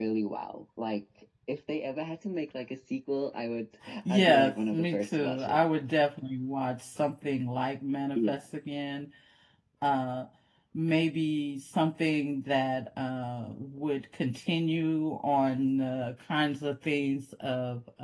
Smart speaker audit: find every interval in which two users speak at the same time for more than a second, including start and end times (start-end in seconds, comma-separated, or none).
4.1-5.6